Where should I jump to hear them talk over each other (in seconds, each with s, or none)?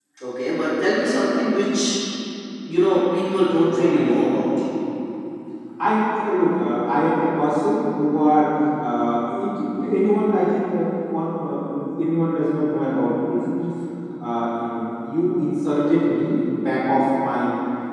3.3 s